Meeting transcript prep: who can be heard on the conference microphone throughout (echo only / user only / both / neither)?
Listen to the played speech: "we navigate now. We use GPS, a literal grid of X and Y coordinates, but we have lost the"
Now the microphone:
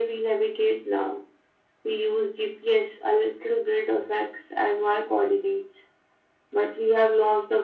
echo only